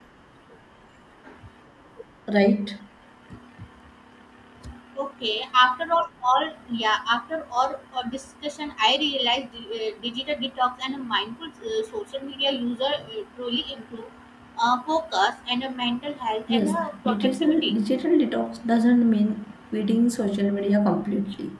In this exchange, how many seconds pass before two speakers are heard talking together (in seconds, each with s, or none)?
16.5 s